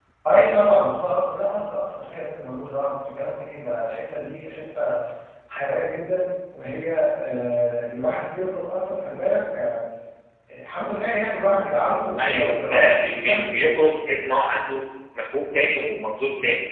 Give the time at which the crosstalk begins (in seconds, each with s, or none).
12.2 s